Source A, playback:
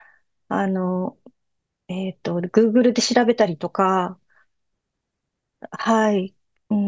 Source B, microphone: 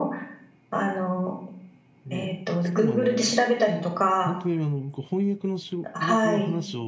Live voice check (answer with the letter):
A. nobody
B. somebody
B